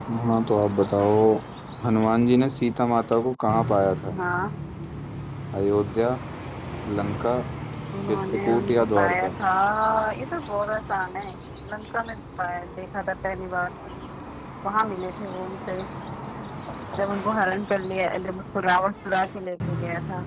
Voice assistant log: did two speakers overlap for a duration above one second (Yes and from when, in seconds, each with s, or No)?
Yes, from 8.1 s